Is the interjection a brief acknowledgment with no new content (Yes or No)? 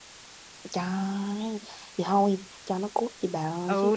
No